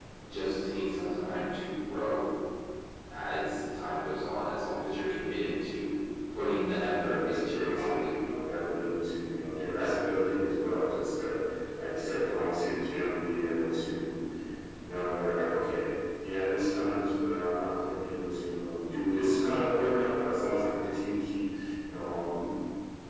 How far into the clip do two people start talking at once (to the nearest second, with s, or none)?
7 s